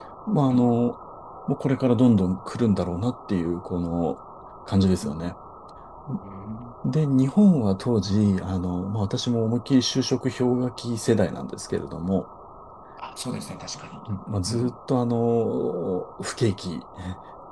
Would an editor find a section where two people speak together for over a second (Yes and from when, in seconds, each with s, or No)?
No